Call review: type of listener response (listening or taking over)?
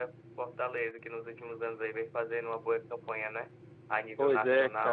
taking over